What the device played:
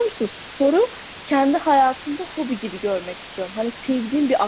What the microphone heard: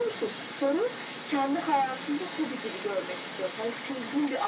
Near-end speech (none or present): none